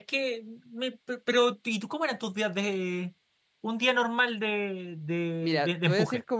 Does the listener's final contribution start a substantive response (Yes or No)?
Yes